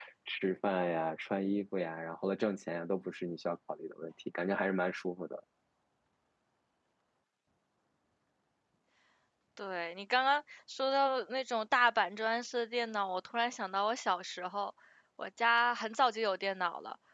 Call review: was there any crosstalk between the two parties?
No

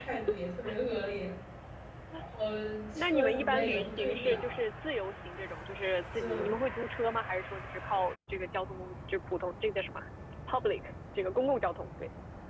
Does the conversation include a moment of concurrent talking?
Yes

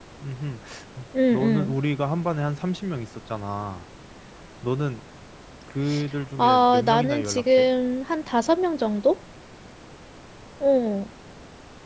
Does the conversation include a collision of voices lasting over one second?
Yes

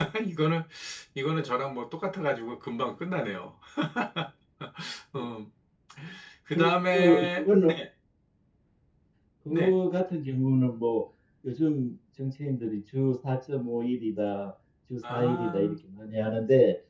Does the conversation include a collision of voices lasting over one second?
Yes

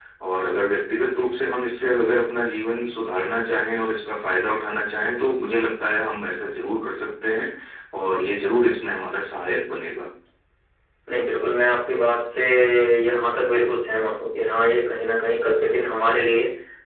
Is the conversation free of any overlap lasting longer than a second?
Yes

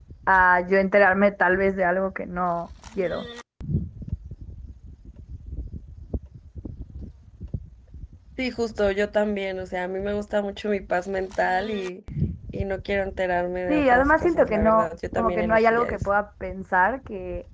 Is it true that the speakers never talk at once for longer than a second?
No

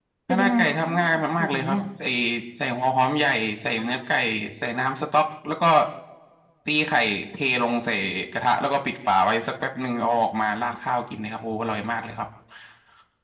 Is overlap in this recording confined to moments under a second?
No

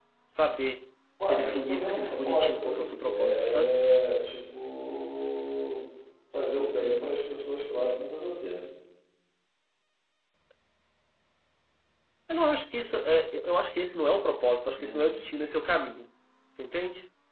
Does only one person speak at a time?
No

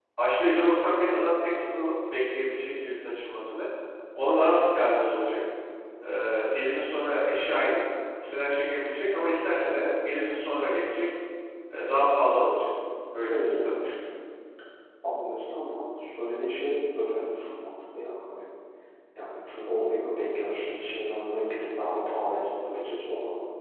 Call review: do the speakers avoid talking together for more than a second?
Yes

